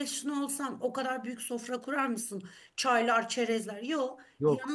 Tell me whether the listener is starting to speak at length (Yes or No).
No